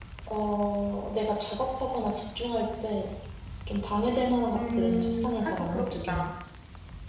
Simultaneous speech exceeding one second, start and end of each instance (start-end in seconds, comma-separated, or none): 4.5-6.3